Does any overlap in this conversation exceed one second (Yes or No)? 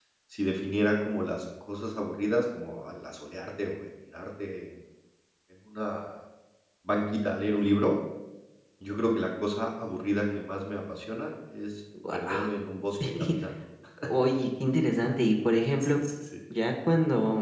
No